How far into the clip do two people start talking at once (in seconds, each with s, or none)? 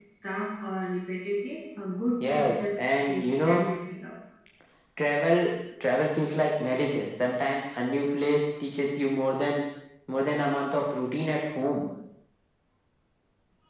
2.2 s